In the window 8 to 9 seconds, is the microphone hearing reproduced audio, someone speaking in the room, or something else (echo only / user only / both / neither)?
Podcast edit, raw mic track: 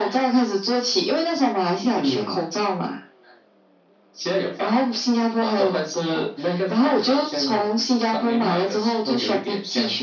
echo only